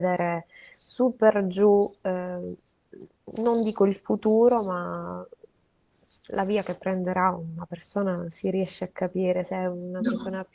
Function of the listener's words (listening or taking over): listening